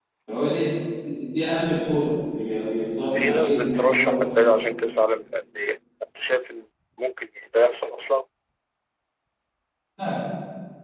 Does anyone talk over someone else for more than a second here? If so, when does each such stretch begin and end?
3.1-4.6

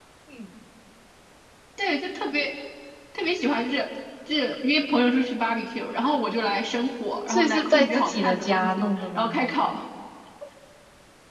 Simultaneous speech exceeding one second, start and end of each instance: 7.3-9.3

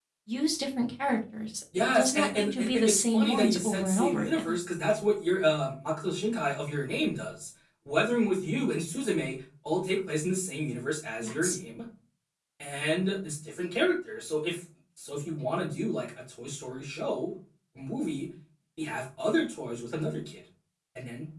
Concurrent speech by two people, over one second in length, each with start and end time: 1.9-4.5

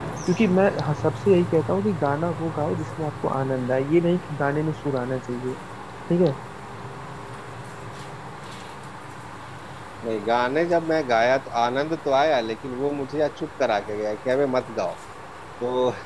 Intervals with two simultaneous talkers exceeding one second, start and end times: none

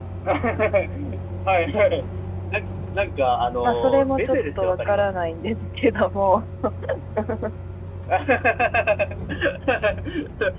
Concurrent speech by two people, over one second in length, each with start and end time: 3.6-5.0

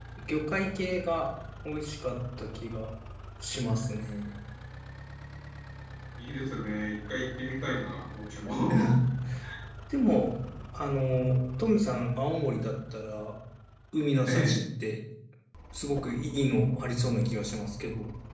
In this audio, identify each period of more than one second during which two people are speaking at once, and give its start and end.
none

